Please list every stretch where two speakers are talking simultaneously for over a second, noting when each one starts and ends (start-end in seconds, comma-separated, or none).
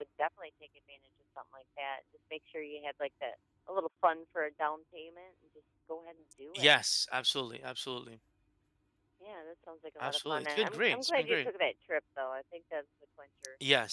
10.0-11.5